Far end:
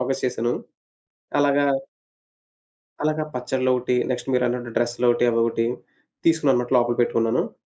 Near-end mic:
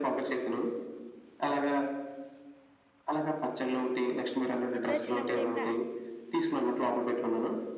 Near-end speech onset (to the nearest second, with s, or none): 5 s